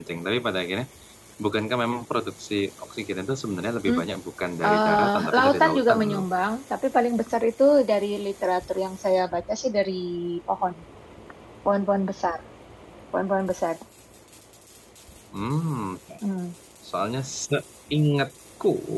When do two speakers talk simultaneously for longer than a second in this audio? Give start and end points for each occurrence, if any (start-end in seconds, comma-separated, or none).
4.7-6.2